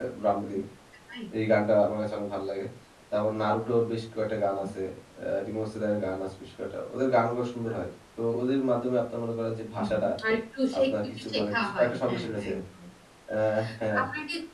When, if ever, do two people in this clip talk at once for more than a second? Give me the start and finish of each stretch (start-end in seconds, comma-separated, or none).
10.9-12.5